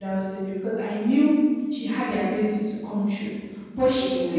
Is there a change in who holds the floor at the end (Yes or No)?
No